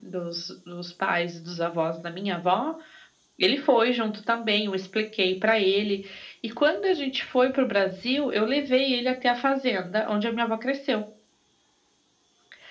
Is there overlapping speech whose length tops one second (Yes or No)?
No